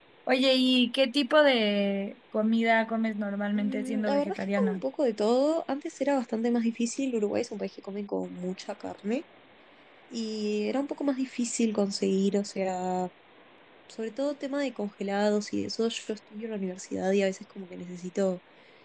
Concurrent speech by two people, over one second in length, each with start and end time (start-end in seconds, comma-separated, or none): 3.6-4.8